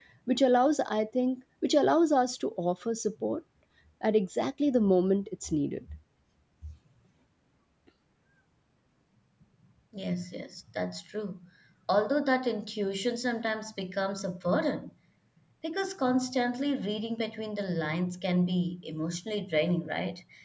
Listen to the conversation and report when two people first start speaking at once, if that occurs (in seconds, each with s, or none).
none